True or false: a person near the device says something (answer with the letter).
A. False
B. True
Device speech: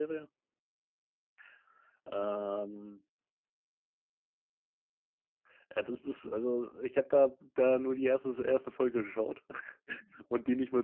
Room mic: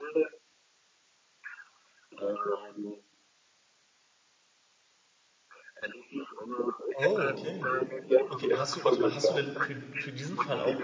B